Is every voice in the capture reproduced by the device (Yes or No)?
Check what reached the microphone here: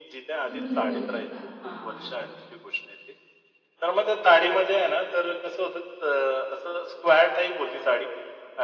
No